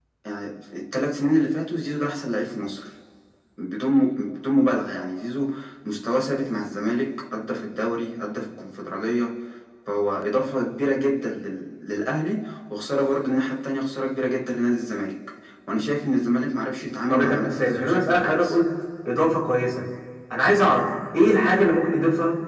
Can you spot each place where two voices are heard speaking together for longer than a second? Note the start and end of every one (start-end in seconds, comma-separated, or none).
17.1-18.6